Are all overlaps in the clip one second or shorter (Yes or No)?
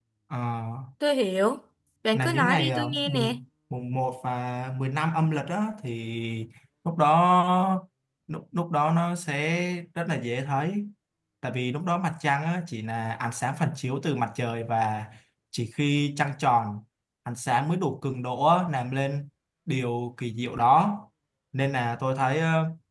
No